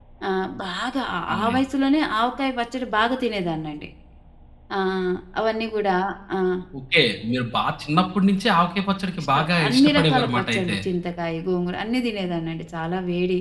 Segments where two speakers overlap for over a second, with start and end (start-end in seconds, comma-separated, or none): 9.2-10.8